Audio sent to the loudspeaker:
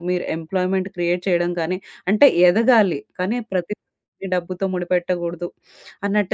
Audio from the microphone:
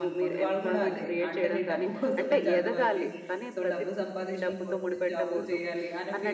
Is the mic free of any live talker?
No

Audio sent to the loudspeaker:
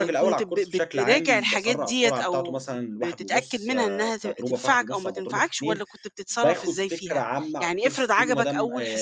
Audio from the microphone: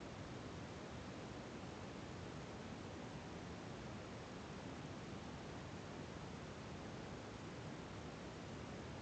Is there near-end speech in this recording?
No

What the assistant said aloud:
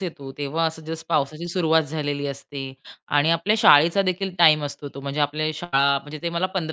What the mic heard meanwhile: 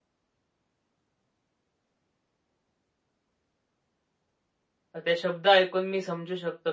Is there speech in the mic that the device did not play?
Yes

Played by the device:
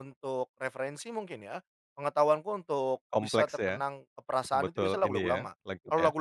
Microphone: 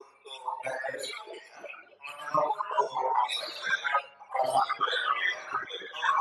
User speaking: No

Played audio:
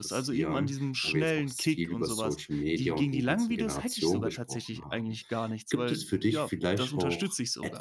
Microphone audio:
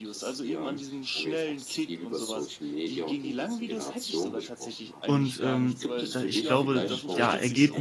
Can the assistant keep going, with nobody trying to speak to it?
No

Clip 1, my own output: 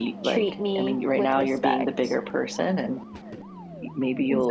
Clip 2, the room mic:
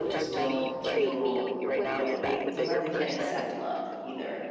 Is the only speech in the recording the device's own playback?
No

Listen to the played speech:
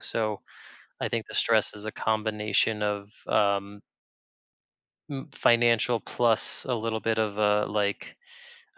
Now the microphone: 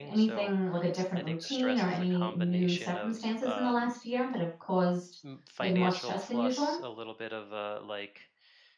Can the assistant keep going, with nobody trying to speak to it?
No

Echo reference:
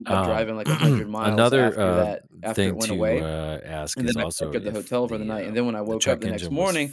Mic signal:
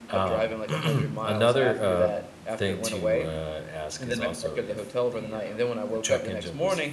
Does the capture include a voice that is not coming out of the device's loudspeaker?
No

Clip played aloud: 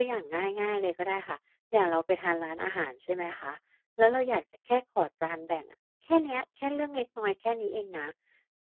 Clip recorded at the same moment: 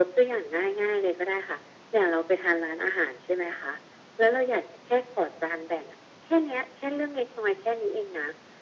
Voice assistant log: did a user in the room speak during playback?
No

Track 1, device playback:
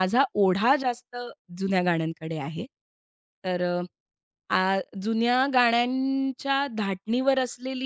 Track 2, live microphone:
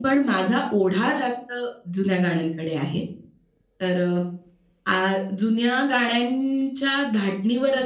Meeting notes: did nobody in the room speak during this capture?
Yes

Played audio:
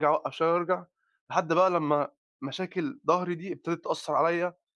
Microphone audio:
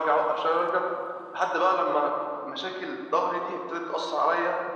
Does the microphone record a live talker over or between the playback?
No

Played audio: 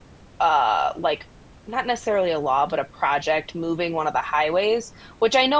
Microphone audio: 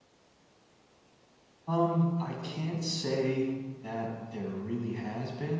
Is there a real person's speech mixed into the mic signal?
Yes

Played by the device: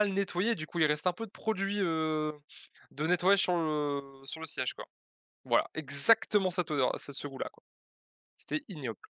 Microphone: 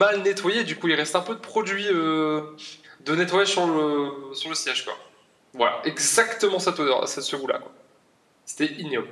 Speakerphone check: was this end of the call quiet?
Yes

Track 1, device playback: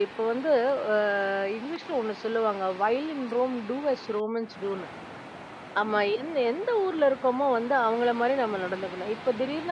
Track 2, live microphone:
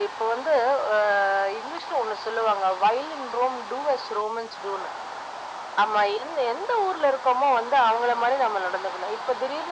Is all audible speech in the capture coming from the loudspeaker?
Yes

